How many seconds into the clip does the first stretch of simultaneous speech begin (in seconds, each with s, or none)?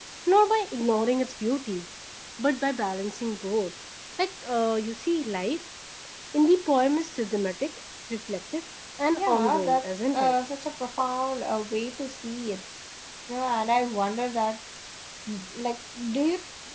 9.1 s